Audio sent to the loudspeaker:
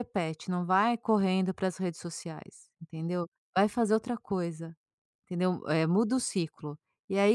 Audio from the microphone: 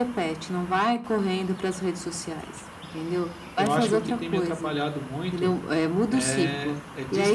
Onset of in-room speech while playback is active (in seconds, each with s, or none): 3.6 s